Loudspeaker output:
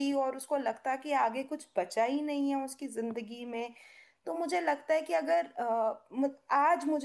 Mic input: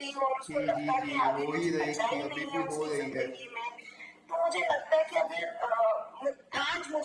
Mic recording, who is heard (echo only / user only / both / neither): both